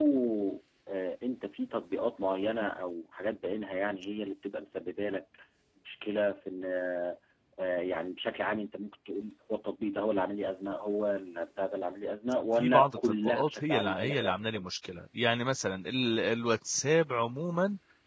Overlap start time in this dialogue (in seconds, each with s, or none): 12.6 s